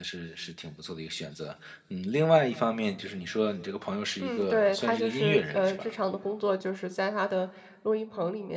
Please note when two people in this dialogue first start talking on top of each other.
4 s

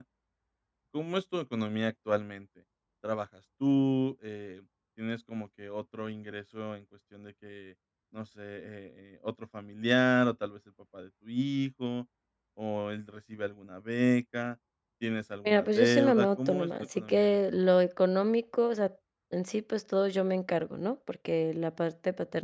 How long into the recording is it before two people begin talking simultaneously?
15 s

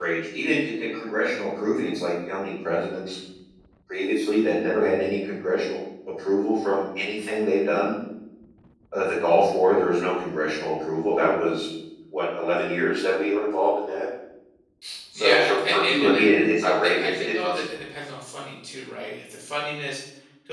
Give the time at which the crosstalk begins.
15 s

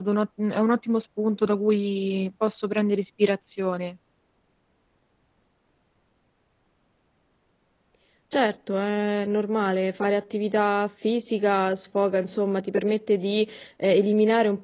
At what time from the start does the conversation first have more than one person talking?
none

